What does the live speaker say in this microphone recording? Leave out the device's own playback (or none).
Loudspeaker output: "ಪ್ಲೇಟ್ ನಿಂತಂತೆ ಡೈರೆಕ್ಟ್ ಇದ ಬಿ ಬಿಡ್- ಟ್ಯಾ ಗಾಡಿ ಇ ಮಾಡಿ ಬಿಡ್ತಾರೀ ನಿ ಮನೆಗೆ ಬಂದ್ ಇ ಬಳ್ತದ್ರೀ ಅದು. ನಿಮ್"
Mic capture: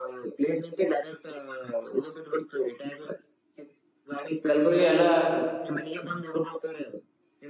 ಕಲ್ಬುರ್ಗಿ ಎಲ್ಲಾ